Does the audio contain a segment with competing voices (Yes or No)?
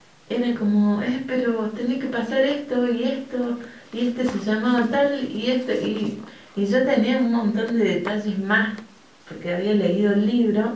No